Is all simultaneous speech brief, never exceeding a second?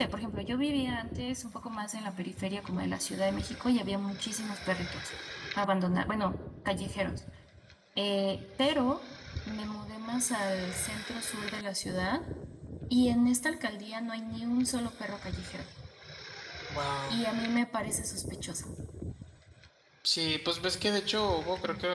Yes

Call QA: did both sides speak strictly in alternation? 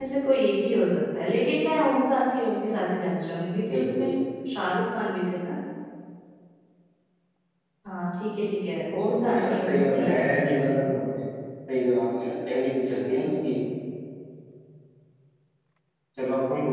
No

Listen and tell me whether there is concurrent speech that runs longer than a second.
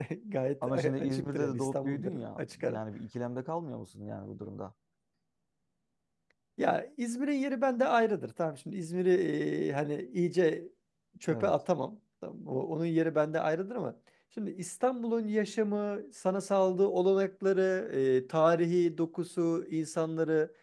Yes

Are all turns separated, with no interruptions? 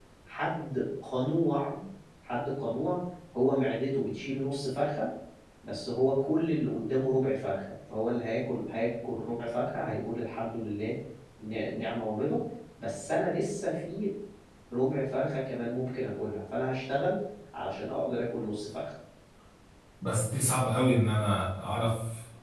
Yes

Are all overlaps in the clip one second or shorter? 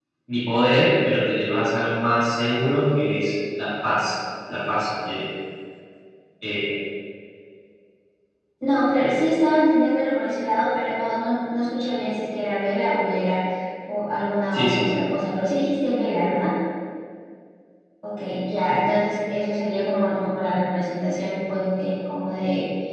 Yes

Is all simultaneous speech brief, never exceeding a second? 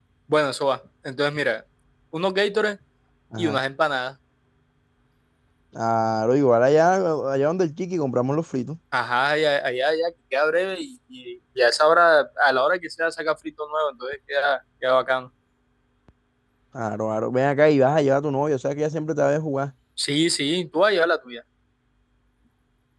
Yes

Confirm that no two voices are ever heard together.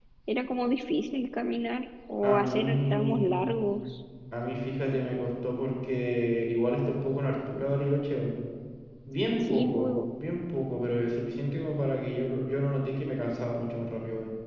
No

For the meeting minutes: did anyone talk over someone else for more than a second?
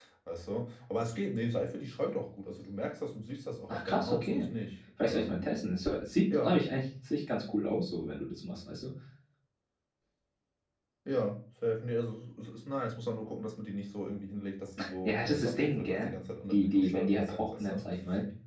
Yes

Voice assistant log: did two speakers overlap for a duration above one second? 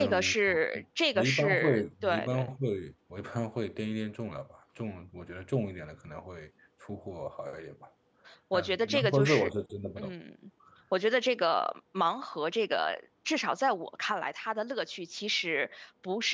Yes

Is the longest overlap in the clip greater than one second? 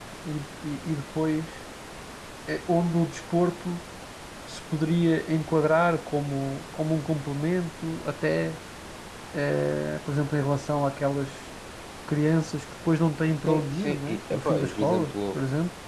Yes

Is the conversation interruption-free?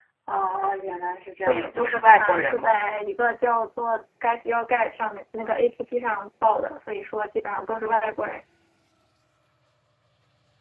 No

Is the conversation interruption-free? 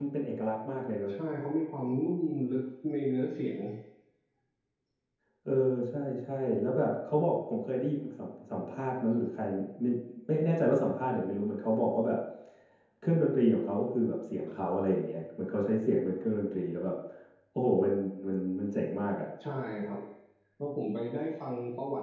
Yes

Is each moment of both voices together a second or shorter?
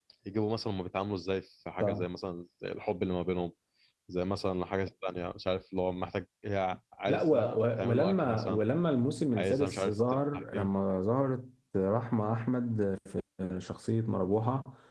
No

